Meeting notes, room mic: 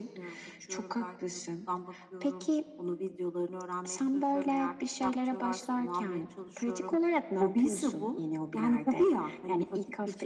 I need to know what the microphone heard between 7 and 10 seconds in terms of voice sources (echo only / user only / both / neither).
echo only